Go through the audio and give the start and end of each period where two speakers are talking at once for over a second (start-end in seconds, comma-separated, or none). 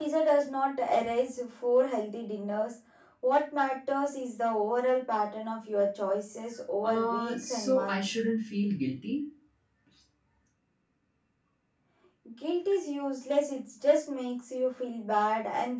6.8-8.1